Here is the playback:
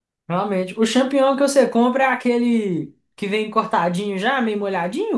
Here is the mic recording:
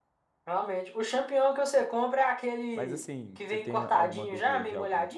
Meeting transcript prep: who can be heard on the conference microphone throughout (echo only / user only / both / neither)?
both